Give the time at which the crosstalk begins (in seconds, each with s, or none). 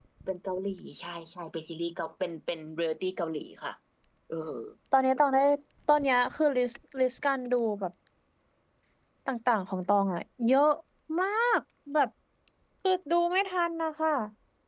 none